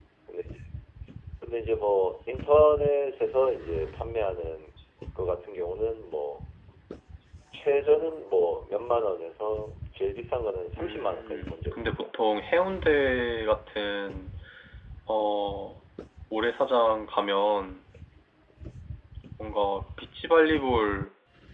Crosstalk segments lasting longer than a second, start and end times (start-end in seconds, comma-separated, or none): 10.8-12.1